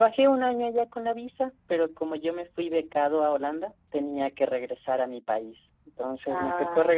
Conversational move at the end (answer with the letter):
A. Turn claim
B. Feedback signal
B